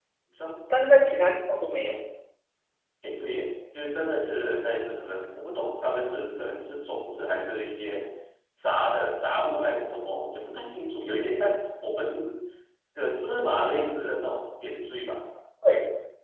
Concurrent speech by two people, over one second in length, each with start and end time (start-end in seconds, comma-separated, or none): none